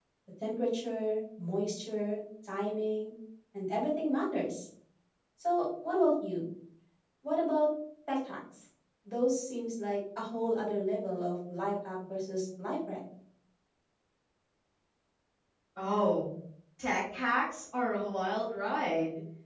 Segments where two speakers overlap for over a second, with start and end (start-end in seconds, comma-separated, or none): none